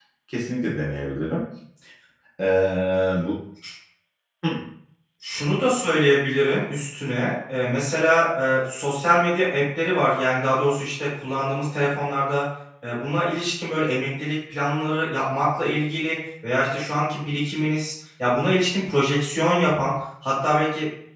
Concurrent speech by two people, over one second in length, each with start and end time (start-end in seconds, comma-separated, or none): none